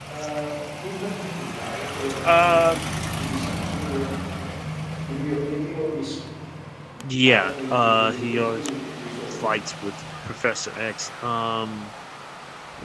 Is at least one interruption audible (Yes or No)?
Yes